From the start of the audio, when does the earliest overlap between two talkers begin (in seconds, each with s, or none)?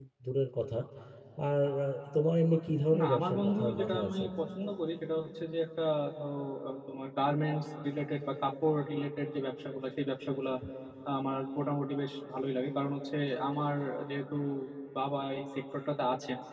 3.0 s